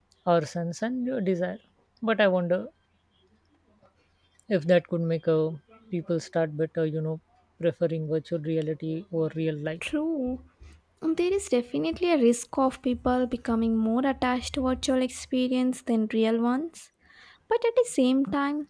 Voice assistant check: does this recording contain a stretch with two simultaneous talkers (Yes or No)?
No